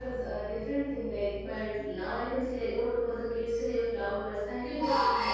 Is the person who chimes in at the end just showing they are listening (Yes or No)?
No